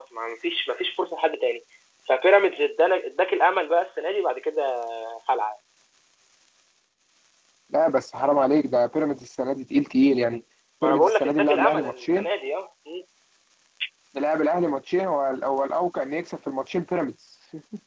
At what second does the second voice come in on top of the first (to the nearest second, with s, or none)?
11 s